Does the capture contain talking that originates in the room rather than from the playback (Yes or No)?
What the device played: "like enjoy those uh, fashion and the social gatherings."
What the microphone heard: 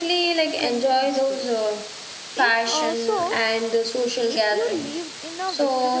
Yes